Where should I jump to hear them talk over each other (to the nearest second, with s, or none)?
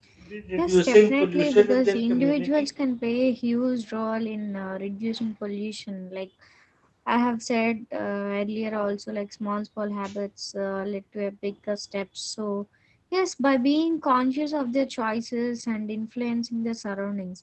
1 s